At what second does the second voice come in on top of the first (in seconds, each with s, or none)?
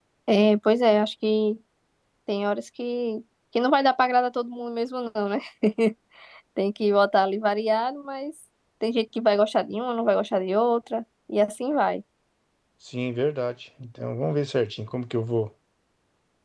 none